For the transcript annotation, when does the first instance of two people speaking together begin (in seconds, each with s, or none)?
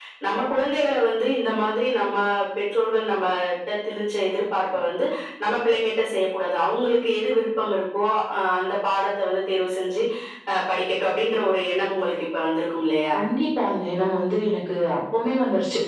none